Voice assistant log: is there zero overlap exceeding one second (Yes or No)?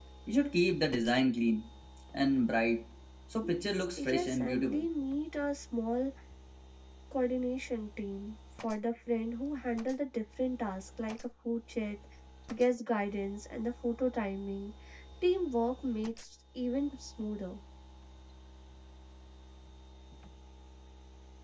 No